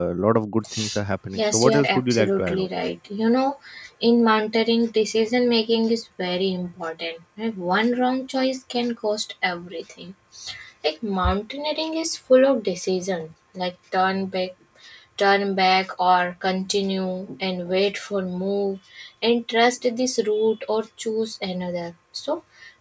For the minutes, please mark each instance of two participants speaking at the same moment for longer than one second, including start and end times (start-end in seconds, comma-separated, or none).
1.3-2.7